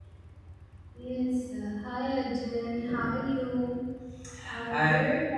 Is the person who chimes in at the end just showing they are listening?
Yes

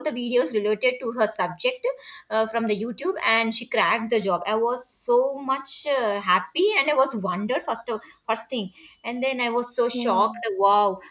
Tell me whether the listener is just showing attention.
Yes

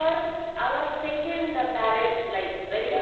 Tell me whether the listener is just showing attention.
Yes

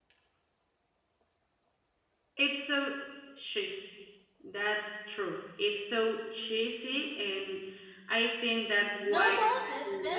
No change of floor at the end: No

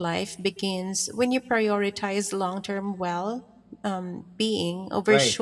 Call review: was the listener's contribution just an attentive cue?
No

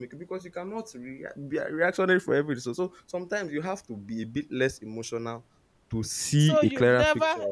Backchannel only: No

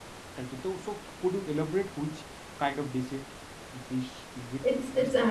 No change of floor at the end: No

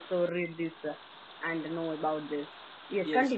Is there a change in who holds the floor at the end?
Yes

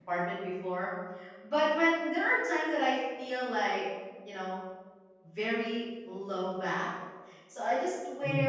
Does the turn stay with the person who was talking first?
Yes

